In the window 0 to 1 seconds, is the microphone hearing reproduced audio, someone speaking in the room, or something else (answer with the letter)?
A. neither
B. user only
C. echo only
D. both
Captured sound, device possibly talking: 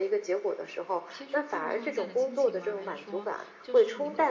C